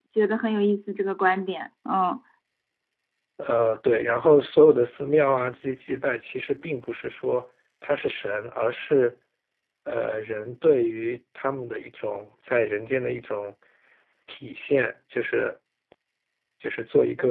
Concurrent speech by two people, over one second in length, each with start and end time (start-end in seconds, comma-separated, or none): none